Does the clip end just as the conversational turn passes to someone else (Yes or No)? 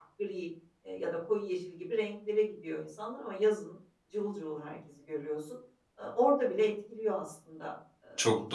Yes